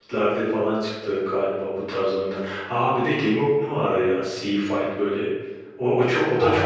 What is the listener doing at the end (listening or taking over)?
taking over